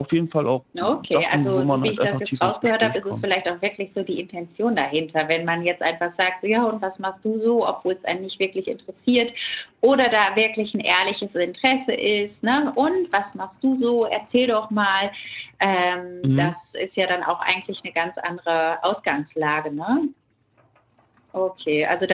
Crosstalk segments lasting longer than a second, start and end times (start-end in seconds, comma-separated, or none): 0.8-3.2